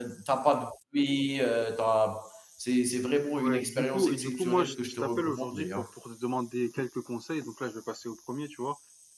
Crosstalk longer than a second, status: present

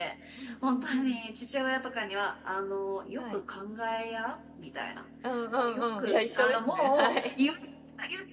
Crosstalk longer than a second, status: present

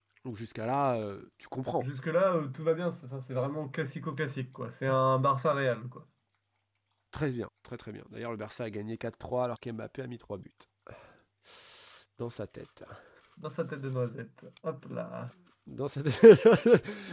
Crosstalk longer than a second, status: none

